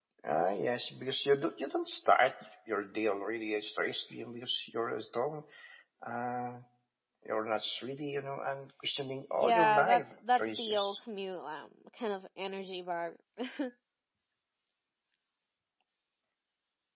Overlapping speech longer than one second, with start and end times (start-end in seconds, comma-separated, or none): 9.3-11.0